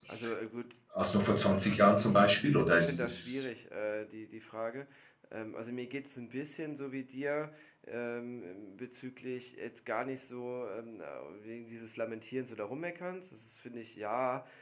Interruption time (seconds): 2.0 s

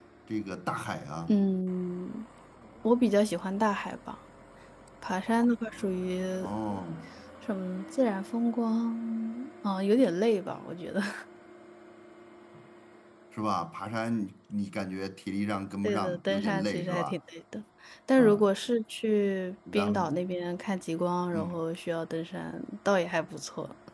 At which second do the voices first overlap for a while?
15.8 s

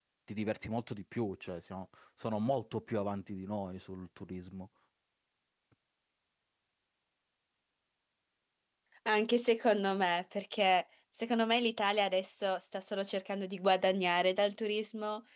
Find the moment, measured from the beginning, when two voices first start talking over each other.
none

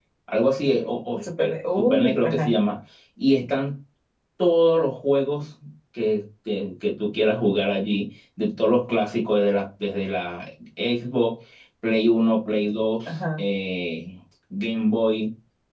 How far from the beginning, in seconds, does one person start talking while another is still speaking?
1.2 s

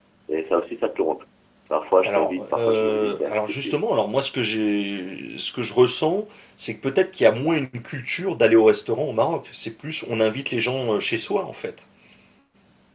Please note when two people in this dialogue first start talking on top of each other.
2.0 s

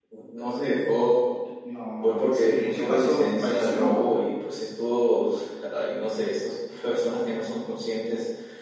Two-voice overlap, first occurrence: 2.0 s

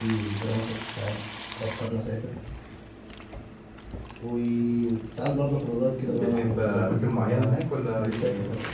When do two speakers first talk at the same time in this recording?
6.0 s

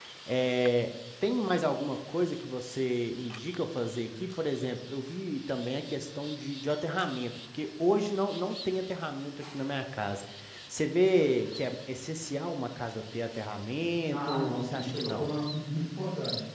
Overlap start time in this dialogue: 14.1 s

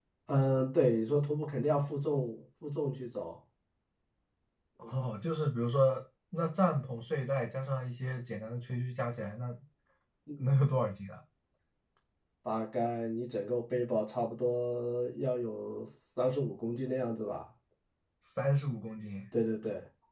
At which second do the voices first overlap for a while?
none

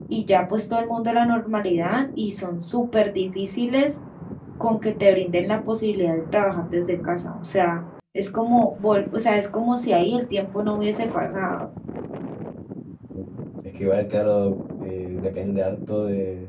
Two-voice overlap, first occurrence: none

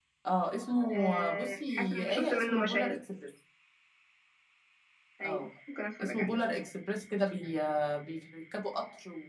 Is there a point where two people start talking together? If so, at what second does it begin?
0.9 s

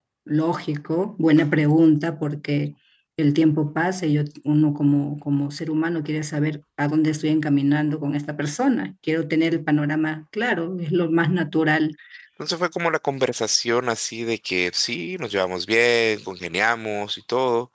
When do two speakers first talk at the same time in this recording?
none

